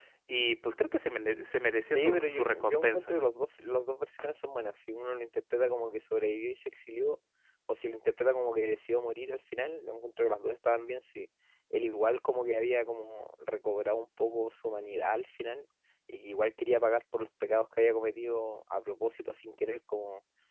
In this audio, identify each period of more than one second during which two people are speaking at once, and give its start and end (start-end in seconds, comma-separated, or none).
1.8-3.2